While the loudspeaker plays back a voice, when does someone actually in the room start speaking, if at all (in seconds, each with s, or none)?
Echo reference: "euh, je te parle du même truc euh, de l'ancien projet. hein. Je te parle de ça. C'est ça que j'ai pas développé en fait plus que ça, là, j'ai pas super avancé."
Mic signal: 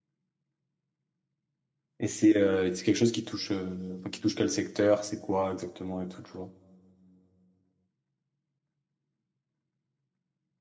2.0 s